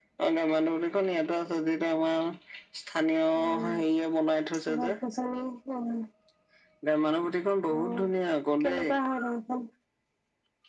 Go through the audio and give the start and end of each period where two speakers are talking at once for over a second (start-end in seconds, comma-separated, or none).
none